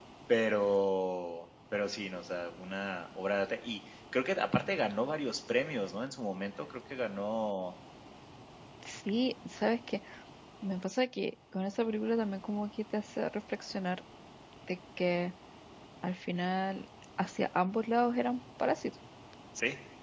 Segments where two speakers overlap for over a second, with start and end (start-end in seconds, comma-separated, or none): none